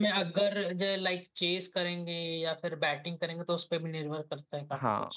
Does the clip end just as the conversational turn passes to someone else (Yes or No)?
Yes